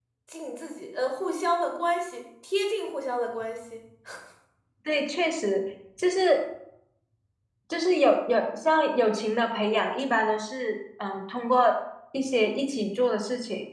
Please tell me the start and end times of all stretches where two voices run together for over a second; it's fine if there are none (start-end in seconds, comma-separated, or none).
none